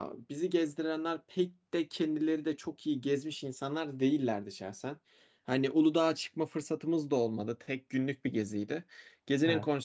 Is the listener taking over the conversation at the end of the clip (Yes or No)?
No